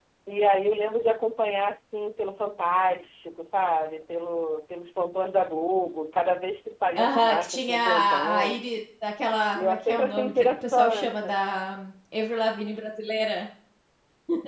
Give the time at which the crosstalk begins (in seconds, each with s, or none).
7.0 s